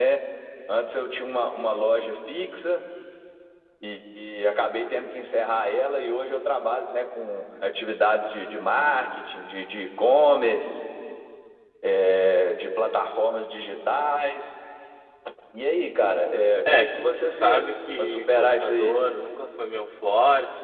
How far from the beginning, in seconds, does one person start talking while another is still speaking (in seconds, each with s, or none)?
16.7 s